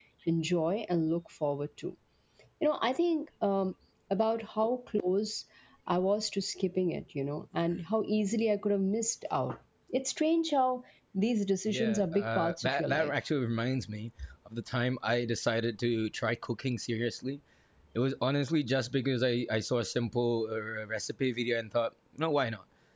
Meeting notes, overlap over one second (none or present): present